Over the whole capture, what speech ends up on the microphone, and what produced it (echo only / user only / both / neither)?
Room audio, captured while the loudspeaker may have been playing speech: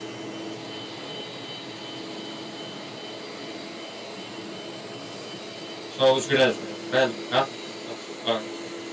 user only